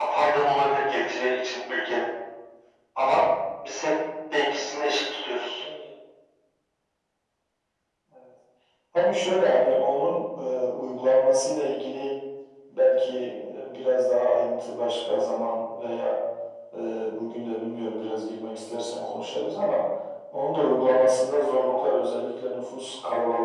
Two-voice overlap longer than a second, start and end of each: none

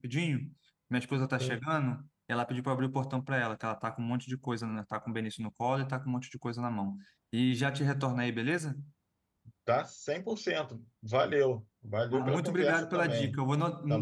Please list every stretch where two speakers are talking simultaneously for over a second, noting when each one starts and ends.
12.1-13.4

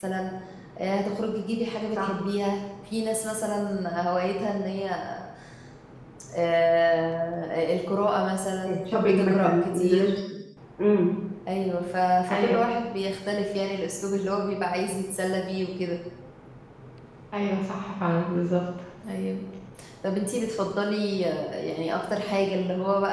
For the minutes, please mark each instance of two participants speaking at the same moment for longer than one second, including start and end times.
8.7-10.1

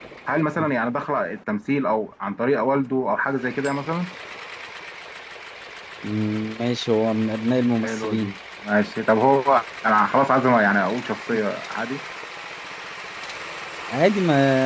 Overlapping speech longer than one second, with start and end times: none

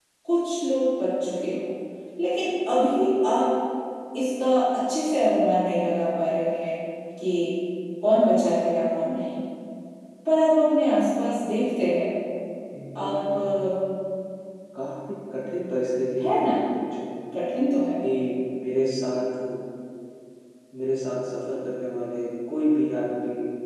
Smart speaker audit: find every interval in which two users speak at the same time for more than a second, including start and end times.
none

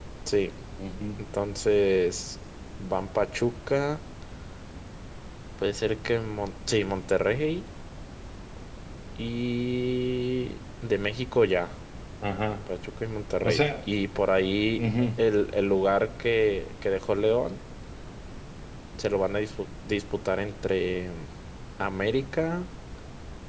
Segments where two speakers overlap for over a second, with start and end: none

